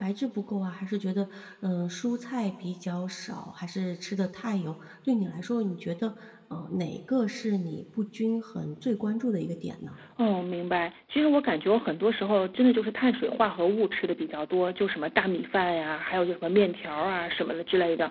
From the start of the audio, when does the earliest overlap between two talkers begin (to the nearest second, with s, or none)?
none